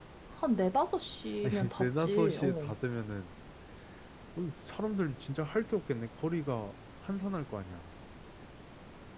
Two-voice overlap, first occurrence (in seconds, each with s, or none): 1.4 s